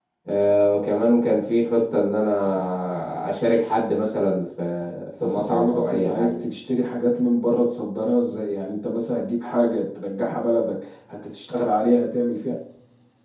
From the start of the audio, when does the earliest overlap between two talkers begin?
5.2 s

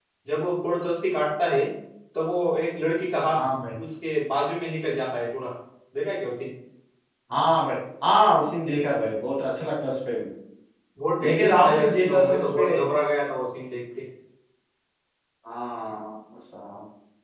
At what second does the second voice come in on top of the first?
11.2 s

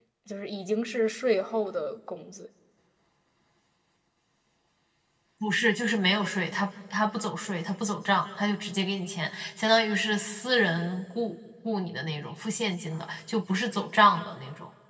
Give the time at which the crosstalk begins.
none

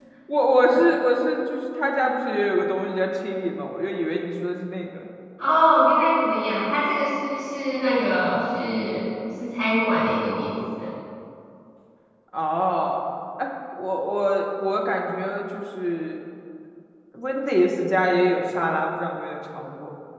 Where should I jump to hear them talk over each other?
none

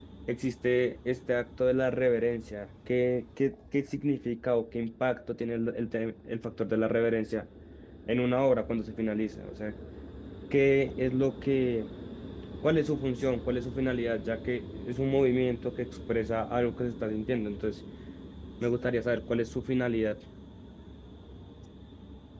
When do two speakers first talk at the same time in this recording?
none

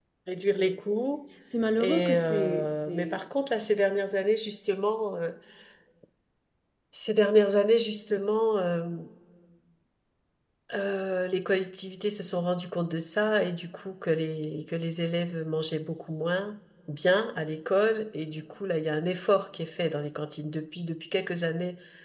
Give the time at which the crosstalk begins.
1.8 s

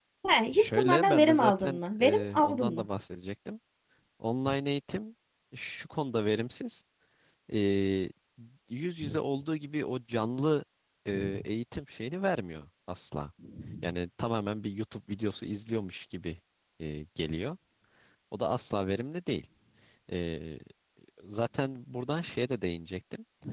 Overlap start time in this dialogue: 0.6 s

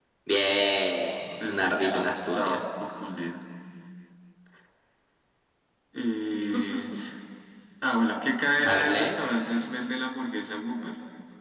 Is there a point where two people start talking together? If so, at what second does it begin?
1.4 s

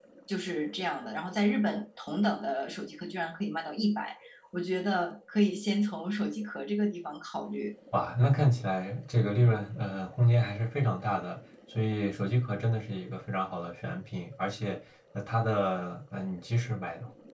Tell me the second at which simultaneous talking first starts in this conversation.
none

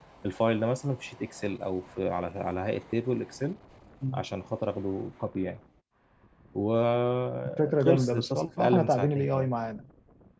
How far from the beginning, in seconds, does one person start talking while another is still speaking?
7.5 s

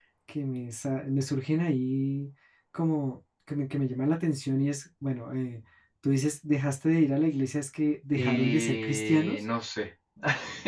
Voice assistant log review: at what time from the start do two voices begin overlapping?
8.1 s

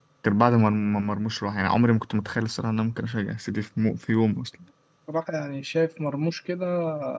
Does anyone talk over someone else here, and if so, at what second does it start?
none

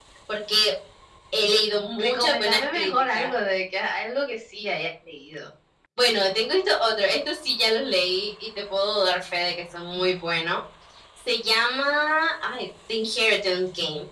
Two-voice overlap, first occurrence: 2.0 s

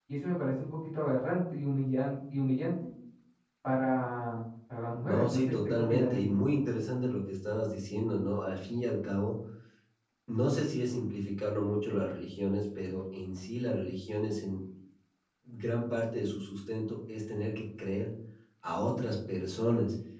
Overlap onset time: 5.0 s

